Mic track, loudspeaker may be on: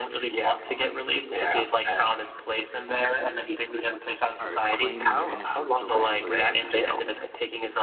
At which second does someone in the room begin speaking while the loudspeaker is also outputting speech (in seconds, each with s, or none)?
4.4 s